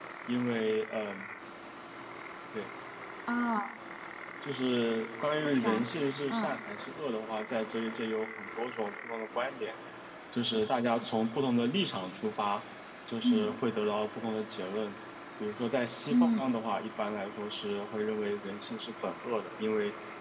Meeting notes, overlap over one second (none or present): none